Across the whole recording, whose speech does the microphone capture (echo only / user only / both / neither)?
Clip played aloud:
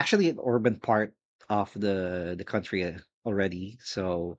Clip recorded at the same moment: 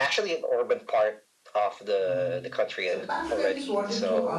both